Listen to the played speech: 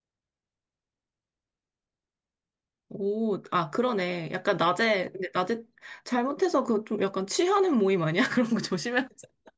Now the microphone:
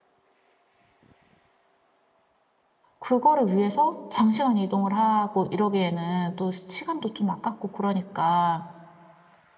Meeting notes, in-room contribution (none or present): present